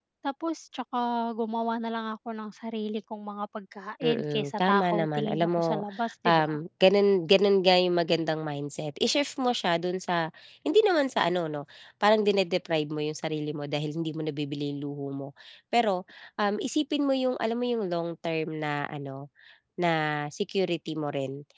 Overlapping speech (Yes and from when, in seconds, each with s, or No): Yes, from 4.0 s